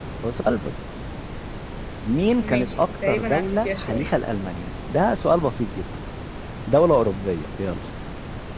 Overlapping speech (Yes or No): Yes